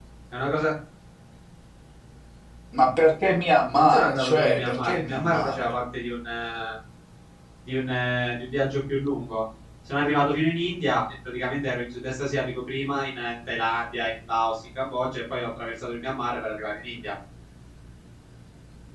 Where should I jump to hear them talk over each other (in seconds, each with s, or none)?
3.8 s